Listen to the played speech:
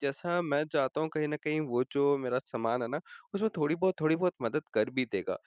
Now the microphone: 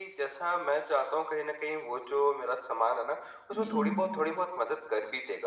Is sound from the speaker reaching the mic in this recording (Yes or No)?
Yes